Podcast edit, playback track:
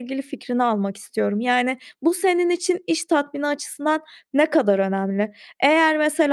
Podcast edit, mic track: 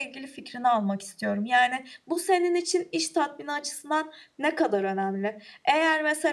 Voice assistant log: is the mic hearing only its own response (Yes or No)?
Yes